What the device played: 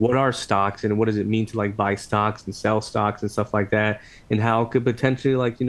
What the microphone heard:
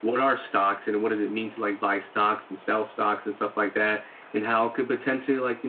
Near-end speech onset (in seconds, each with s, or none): none